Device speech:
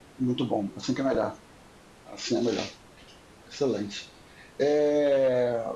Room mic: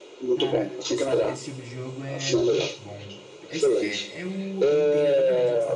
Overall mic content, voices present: both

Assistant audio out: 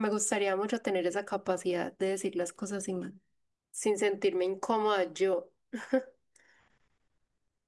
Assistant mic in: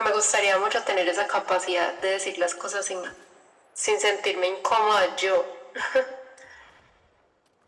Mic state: echo only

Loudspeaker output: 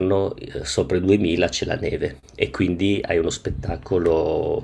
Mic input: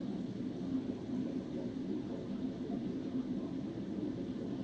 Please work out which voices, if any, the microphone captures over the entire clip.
neither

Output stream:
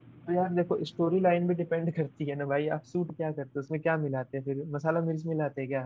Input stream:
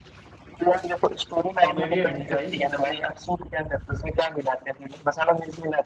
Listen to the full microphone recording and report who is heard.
both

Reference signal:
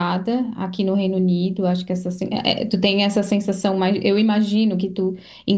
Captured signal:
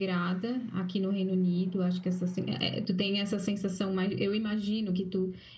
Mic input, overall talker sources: echo only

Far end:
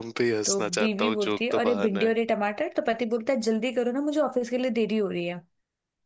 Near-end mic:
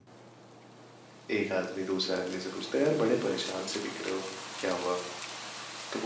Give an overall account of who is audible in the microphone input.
user only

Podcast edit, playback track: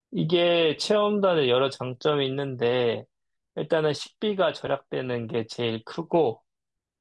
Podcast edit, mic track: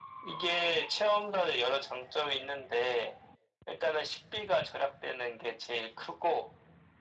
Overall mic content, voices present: echo only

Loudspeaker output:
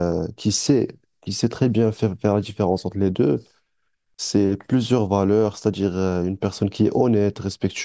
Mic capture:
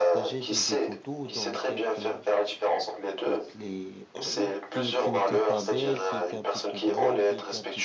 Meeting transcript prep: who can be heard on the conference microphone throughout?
both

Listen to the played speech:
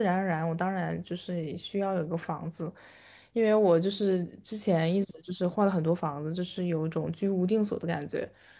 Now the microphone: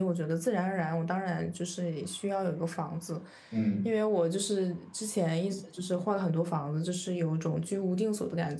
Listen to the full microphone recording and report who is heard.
both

